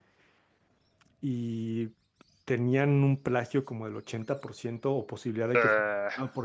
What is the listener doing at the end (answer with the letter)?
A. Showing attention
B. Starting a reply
A